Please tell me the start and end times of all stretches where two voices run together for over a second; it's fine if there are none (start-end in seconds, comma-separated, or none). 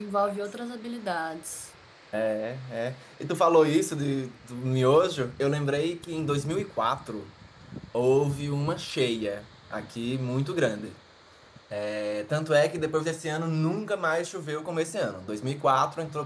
none